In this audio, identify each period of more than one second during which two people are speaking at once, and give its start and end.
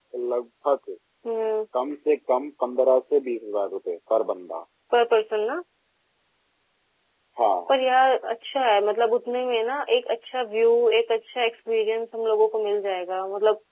none

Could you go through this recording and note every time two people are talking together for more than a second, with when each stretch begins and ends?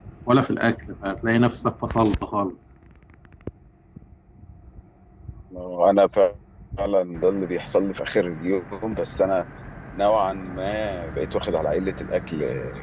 none

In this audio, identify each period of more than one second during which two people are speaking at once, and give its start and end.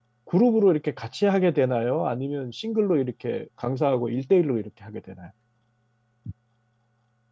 none

